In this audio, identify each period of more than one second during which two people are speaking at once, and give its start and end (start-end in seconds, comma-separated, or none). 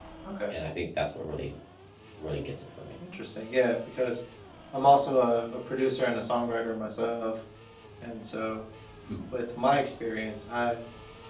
none